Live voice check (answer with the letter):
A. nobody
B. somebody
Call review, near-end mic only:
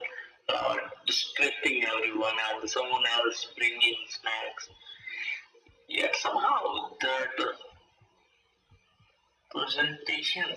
A